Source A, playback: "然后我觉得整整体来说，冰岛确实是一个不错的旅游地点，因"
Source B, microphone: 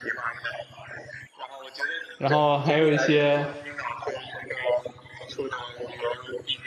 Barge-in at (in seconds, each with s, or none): 2.2 s